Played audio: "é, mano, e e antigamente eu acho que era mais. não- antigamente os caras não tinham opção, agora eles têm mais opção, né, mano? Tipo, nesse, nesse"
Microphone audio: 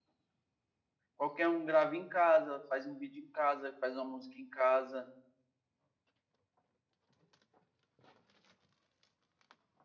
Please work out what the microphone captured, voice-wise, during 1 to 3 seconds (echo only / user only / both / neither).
user only